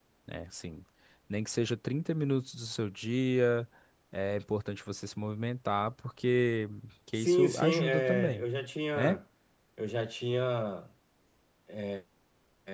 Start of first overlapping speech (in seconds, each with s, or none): 7.2 s